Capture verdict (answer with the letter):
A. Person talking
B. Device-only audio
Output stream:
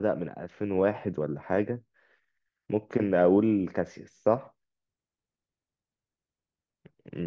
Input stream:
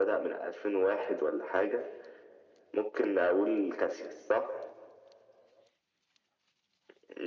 B